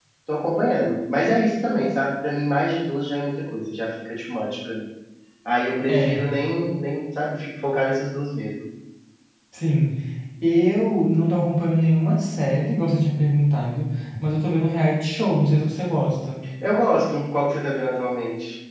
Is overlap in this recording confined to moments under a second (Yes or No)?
Yes